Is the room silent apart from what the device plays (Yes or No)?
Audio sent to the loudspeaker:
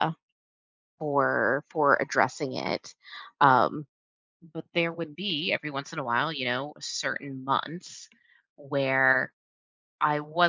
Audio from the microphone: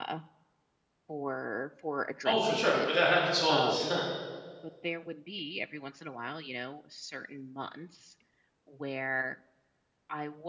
No